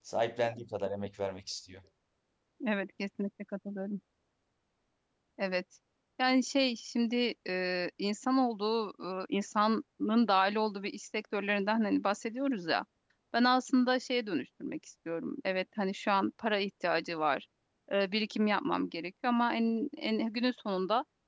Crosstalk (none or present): none